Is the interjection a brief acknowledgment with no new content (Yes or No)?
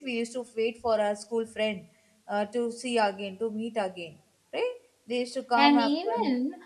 No